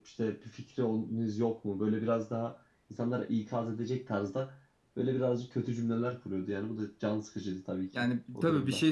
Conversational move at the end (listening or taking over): taking over